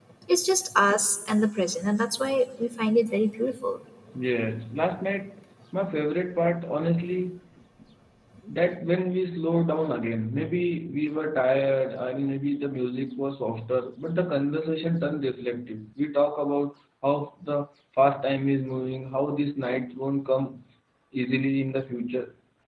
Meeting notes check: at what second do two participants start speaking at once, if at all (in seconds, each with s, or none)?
none